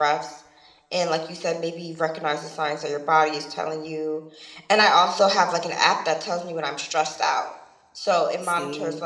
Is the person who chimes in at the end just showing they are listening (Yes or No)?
Yes